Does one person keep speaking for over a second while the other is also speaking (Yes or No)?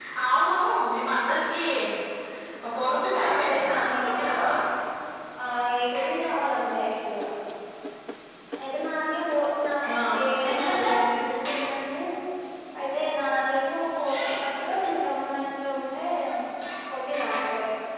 Yes